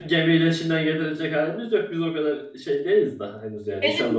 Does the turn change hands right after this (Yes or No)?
Yes